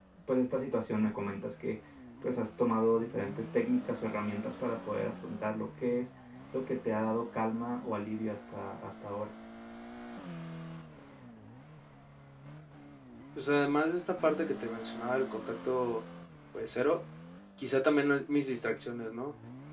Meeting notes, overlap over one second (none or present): none